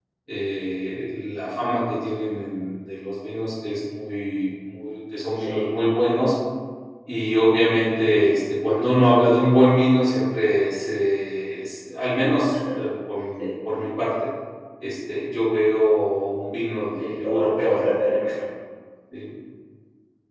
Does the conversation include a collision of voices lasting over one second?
Yes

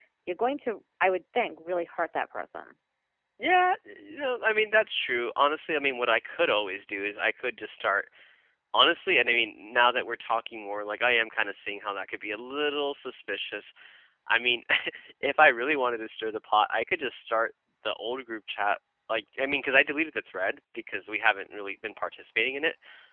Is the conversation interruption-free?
Yes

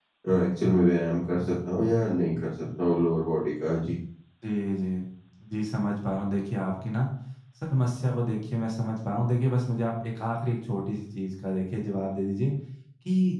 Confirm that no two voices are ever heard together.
Yes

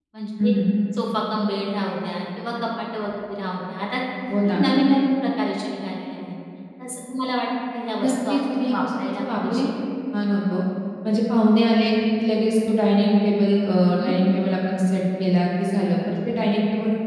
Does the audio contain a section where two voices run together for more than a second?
Yes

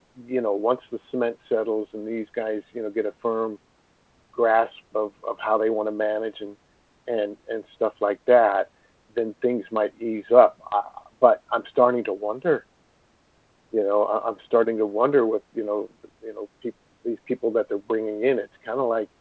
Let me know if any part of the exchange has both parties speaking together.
No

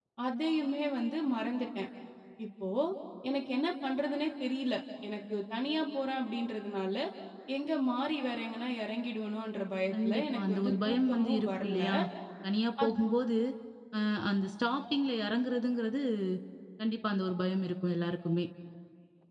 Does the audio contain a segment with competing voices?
Yes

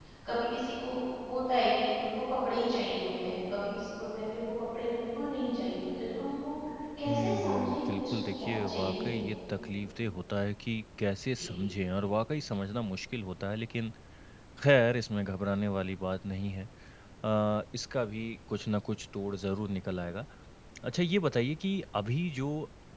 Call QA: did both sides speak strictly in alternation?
No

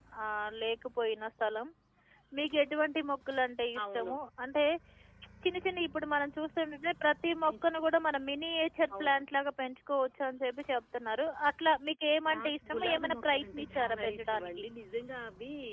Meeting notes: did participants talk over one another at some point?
Yes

